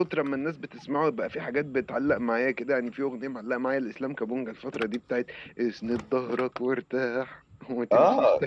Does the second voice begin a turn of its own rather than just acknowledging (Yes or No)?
Yes